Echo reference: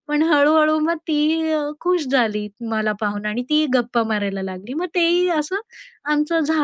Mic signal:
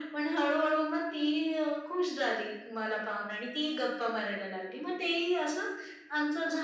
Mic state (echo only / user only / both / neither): echo only